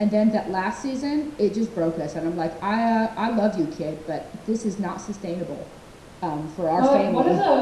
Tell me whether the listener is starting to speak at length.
Yes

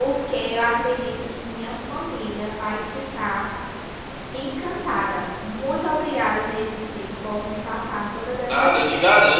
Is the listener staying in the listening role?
No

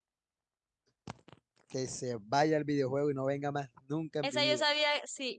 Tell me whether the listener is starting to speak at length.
Yes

